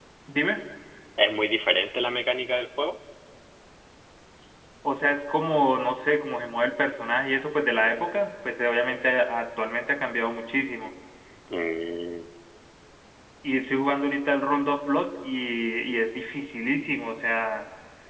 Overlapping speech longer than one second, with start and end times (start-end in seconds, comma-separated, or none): none